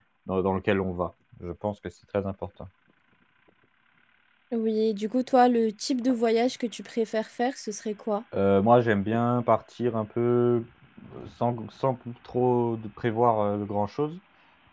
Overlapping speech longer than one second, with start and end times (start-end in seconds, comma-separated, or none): none